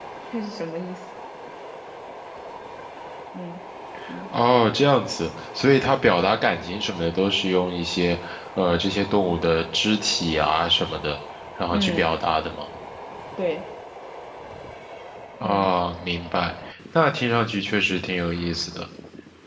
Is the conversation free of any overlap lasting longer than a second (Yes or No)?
Yes